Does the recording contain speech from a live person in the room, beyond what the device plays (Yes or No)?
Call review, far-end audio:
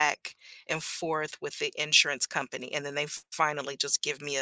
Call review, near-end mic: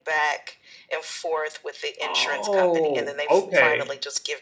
Yes